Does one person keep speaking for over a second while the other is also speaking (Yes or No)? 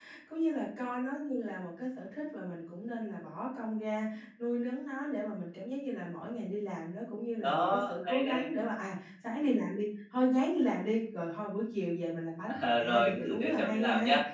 Yes